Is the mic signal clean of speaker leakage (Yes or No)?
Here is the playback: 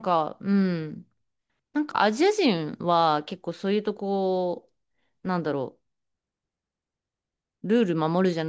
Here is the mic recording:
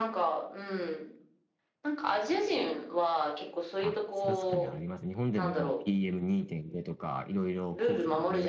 No